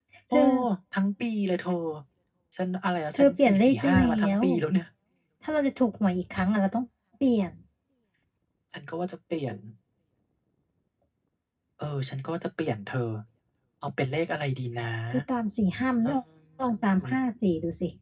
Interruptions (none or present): present